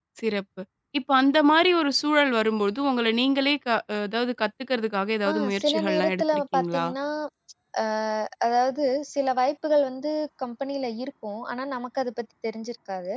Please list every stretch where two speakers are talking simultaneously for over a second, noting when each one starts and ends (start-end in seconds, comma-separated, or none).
5.3-6.8